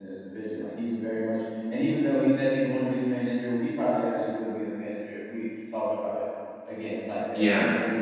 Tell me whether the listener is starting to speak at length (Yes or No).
No